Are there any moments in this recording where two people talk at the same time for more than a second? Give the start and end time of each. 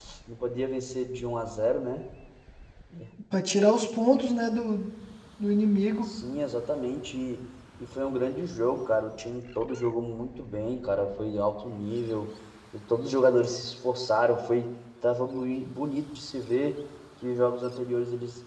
none

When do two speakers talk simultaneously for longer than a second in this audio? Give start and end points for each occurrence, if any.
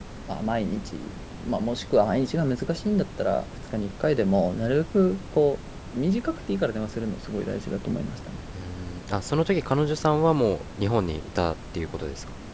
none

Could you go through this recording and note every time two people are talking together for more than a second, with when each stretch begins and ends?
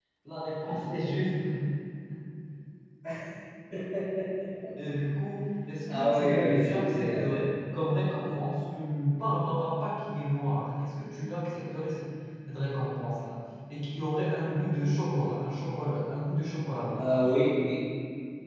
5.9-7.3

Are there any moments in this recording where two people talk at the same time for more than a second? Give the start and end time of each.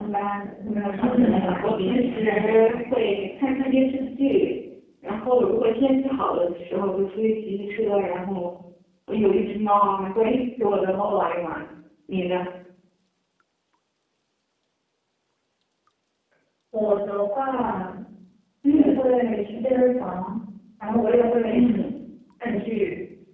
1.0-2.8

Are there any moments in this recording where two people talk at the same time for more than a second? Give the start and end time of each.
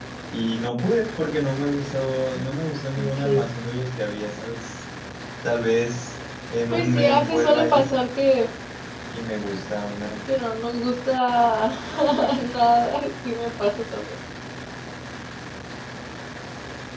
6.7-7.9

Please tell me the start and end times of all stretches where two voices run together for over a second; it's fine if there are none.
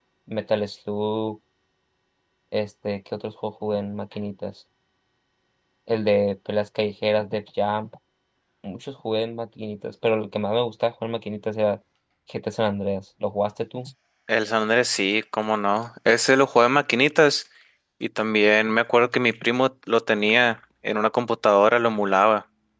none

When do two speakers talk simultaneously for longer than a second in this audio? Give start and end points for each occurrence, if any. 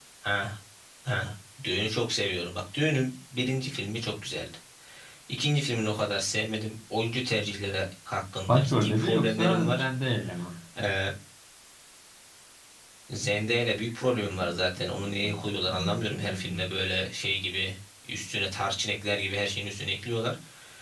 8.5-9.8

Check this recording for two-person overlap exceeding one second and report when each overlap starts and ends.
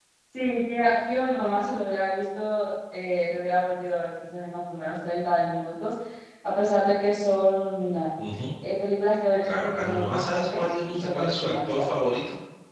9.4-11.8

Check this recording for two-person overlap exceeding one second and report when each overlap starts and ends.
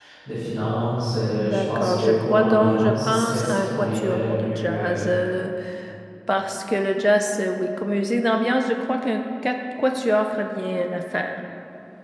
1.3-4.9

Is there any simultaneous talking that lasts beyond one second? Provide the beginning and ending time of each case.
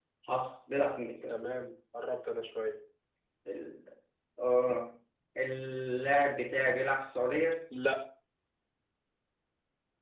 none

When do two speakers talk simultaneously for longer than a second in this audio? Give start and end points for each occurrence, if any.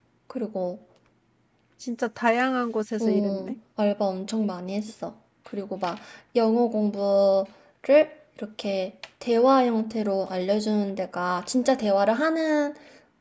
none

